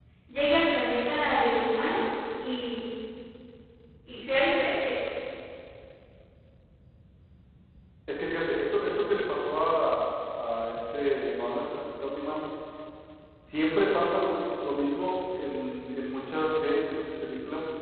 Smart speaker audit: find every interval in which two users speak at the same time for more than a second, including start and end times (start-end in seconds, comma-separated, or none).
none